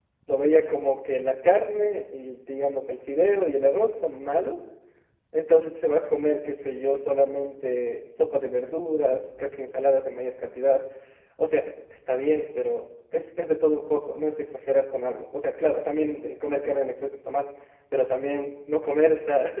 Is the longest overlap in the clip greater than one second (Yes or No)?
No